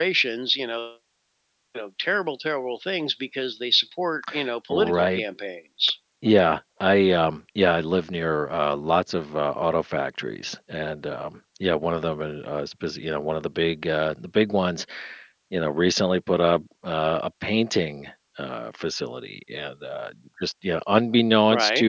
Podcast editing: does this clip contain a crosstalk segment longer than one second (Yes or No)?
No